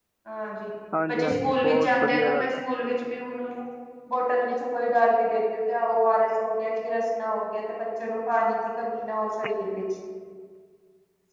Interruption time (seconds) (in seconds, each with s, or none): 1.1 s